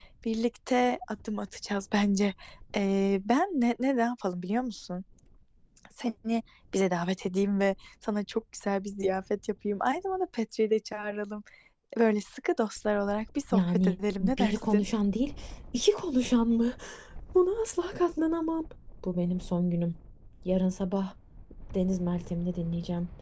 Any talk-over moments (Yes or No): Yes